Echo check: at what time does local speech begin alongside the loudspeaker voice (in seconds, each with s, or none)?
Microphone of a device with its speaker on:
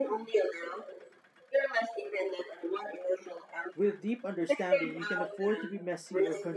3.7 s